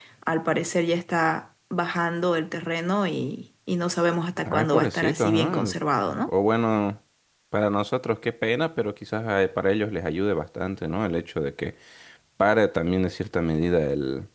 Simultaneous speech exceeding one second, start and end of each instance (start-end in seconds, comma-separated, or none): 4.4-5.7